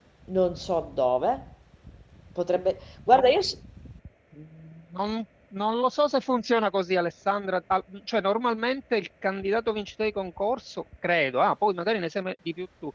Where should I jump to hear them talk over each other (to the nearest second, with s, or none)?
none